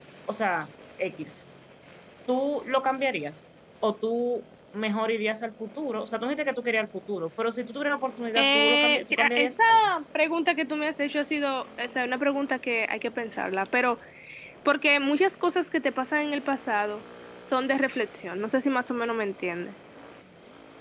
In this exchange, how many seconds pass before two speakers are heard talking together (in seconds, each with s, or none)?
8.3 s